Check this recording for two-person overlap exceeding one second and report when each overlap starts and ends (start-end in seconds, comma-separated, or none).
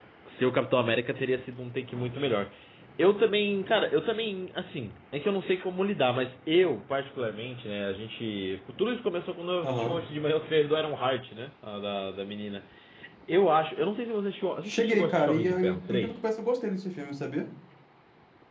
14.6-16.2